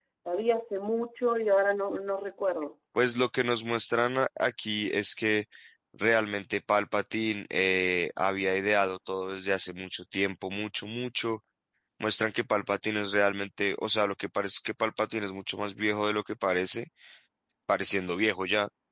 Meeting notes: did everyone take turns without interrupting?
Yes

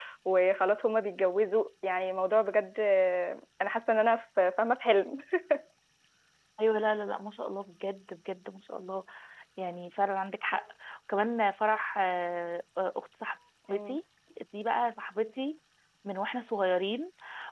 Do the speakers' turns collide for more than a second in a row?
No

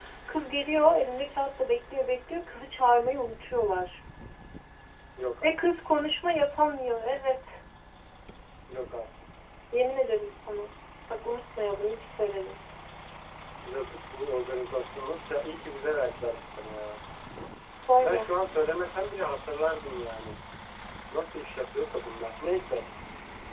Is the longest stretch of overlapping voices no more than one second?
Yes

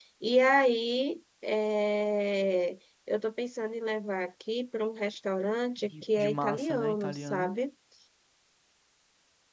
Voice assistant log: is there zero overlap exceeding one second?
No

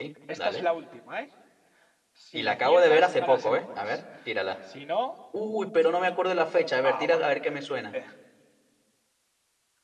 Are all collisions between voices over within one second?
No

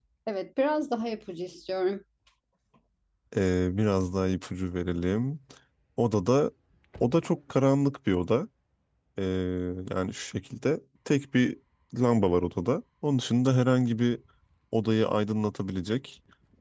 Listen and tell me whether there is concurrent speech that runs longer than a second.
No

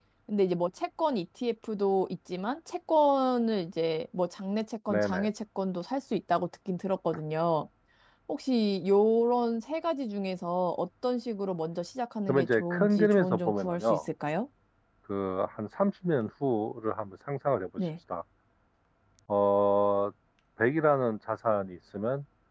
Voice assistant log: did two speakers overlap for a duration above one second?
Yes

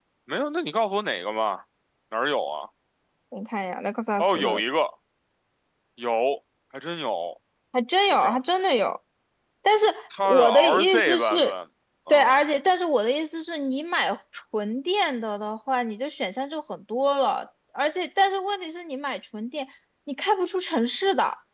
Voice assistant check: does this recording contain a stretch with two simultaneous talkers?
Yes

